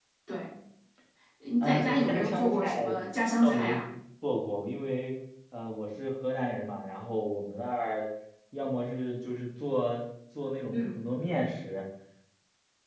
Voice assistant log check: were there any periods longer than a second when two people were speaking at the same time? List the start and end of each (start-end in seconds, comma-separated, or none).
1.6-3.0